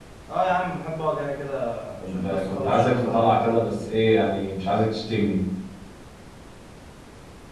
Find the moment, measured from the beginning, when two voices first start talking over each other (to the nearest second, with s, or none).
2 s